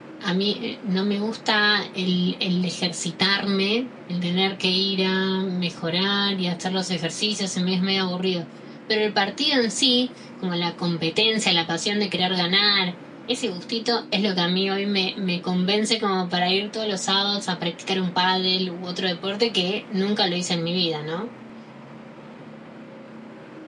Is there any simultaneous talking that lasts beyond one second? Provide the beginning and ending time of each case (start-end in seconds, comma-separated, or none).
none